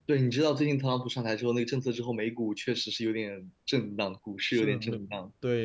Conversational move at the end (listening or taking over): taking over